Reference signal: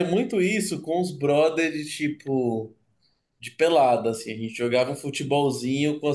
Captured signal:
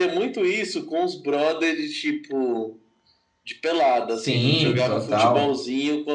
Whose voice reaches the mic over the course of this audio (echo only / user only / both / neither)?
both